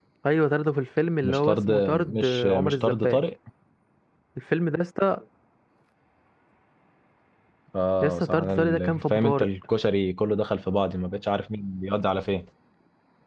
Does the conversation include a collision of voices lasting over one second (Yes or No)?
Yes